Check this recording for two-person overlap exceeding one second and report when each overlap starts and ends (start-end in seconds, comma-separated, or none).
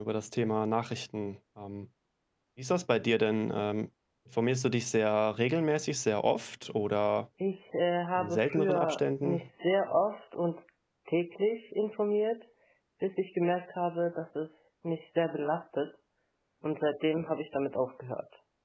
8.2-9.5